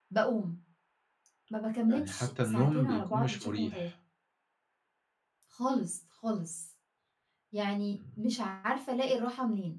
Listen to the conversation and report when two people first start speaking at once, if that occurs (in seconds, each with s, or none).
1.9 s